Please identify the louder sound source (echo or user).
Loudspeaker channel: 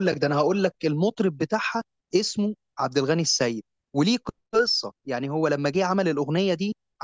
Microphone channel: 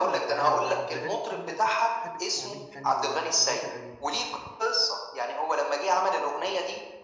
echo